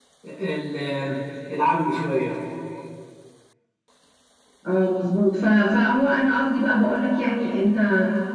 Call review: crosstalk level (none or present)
none